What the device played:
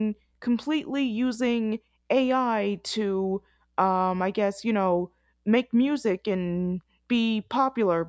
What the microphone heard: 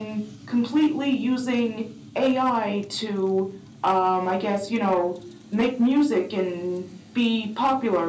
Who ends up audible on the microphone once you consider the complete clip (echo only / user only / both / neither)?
echo only